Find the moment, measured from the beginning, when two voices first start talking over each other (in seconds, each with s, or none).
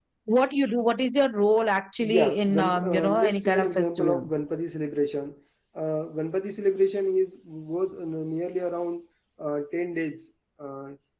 2.0 s